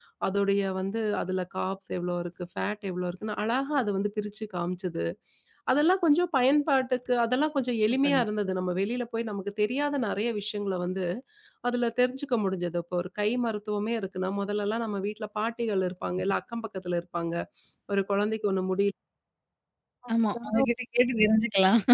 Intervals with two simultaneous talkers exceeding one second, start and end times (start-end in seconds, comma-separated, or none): none